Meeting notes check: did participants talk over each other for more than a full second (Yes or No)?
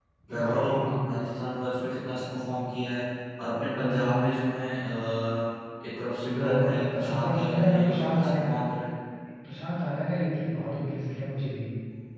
Yes